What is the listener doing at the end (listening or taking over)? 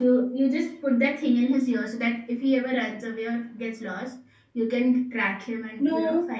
listening